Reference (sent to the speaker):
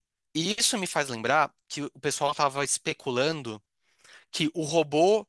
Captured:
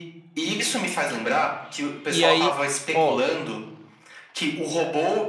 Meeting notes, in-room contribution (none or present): present